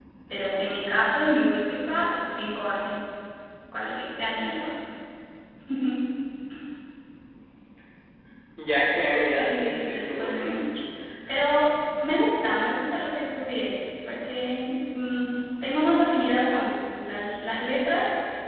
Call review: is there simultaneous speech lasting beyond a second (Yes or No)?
Yes